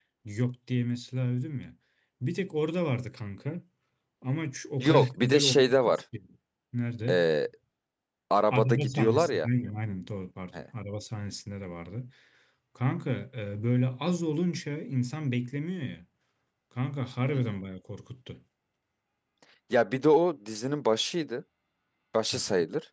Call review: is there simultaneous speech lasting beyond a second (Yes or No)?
Yes